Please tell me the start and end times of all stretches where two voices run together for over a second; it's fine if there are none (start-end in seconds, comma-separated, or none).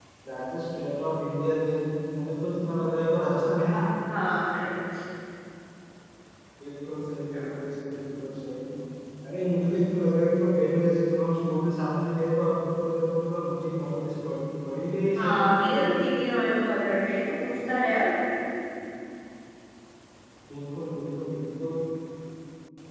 none